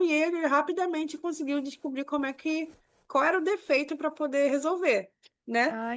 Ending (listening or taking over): listening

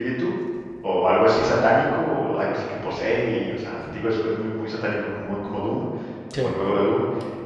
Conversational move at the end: listening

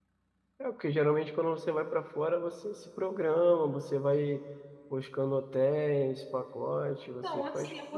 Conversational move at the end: taking over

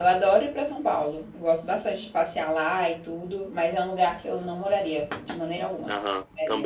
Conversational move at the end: taking over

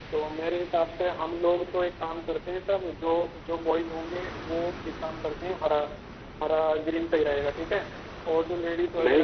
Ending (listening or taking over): listening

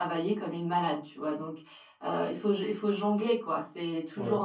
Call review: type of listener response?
listening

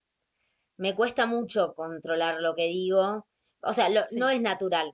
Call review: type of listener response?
listening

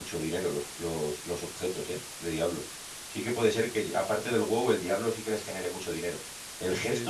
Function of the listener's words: listening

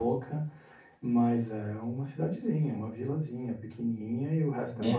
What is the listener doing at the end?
listening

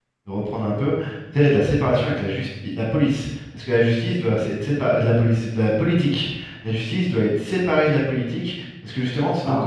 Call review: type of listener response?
listening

